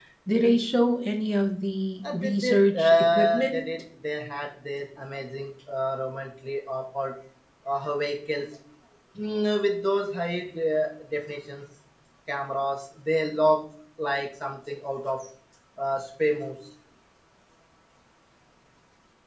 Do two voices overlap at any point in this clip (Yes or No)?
Yes